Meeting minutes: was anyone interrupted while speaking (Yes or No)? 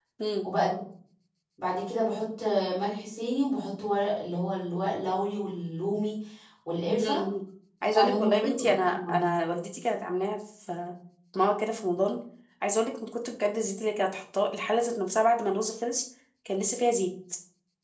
Yes